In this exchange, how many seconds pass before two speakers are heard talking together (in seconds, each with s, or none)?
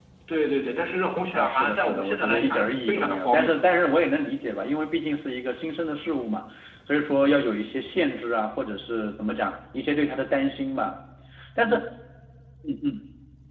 1.3 s